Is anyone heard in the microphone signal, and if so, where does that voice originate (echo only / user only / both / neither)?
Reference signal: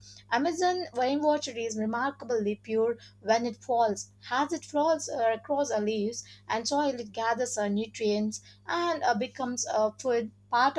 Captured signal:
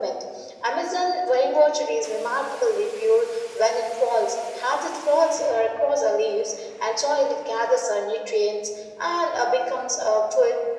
echo only